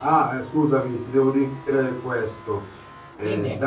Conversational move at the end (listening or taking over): listening